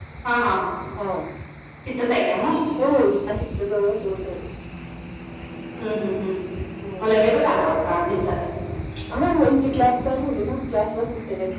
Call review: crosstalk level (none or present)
none